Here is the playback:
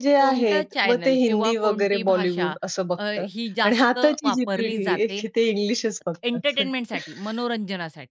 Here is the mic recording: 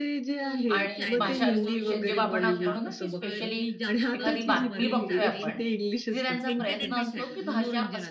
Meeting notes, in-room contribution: present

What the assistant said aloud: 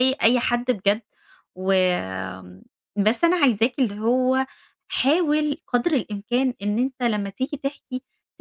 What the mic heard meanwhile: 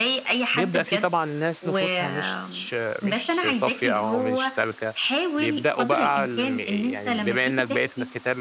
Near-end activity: present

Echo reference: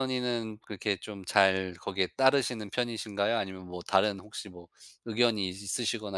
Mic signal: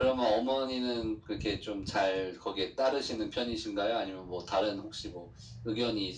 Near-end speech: none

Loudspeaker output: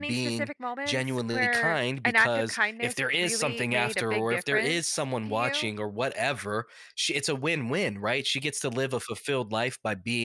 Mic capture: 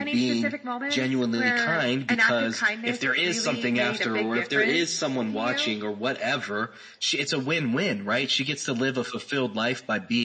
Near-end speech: none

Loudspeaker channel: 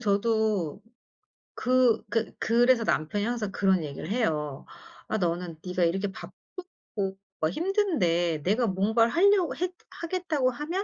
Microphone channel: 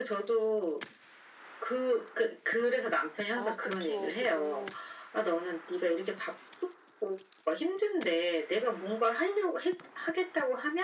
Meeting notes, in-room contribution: present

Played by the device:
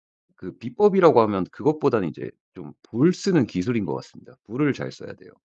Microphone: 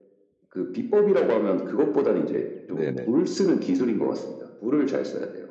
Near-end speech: present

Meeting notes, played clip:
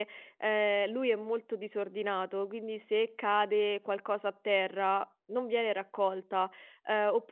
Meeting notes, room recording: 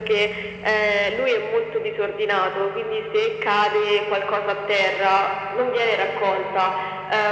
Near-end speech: none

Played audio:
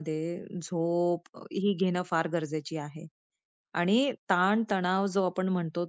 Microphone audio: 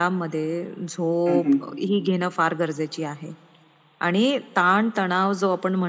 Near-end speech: present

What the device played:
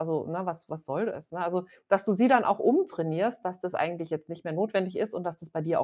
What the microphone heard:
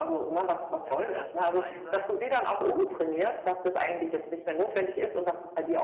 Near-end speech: present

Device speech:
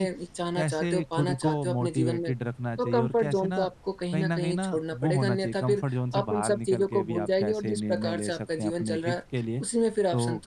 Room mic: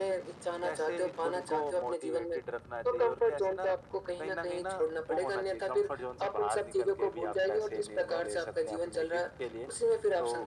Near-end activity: none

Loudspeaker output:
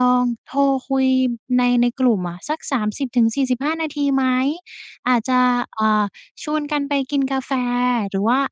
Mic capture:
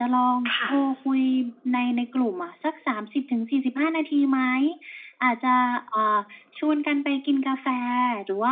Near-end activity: present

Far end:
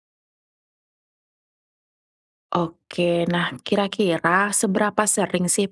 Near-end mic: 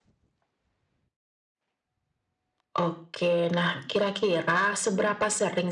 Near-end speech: none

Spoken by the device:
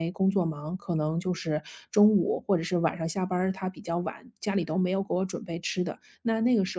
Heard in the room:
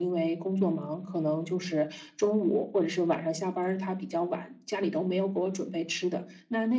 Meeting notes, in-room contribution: none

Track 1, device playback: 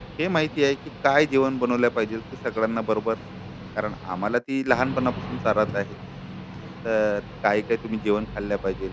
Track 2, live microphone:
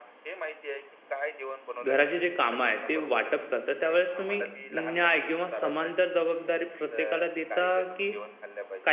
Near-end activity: present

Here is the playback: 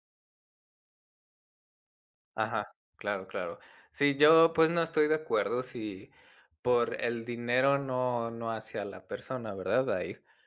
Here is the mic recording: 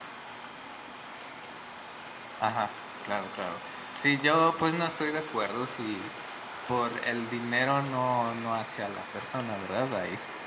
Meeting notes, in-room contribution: none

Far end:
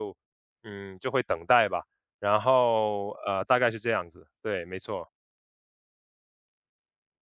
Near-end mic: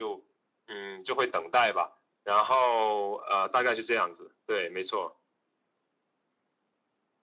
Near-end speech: none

